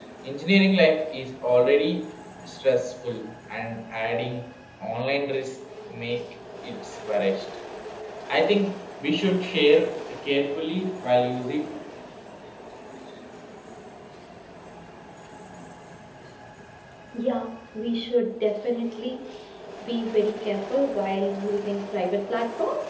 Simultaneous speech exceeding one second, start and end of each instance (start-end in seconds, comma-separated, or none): none